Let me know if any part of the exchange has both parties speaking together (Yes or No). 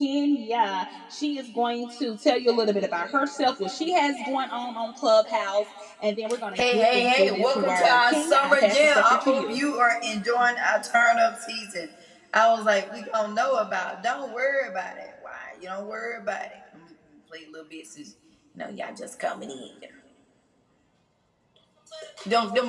Yes